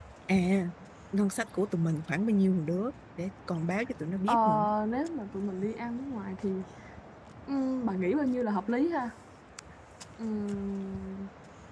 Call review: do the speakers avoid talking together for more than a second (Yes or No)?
Yes